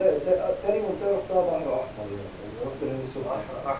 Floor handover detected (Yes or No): Yes